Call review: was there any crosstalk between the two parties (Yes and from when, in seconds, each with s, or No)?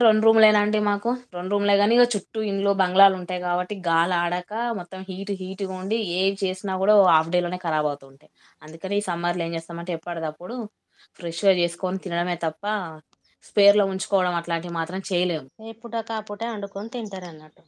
No